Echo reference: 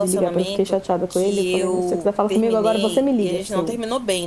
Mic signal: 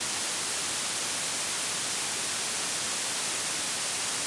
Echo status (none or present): none